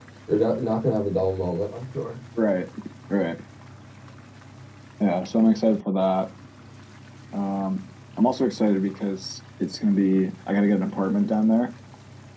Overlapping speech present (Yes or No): No